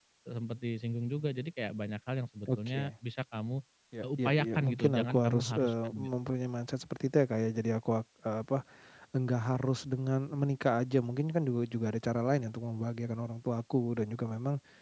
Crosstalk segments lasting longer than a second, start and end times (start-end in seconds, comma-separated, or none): 4.2-6.1